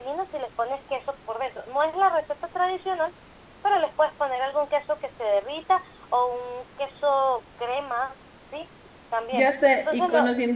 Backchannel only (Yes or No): No